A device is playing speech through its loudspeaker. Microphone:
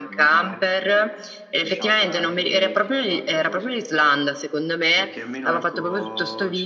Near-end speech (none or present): present